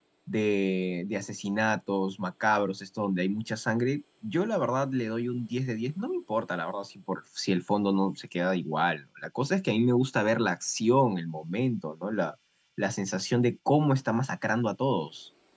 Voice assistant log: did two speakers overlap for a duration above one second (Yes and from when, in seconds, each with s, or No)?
No